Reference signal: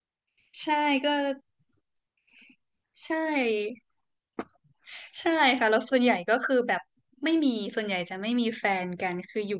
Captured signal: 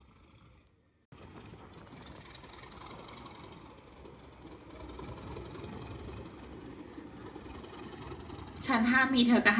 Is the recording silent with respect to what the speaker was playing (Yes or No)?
Yes